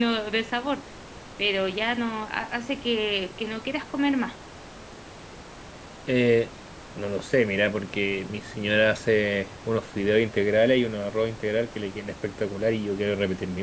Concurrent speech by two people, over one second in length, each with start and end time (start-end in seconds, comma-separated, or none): none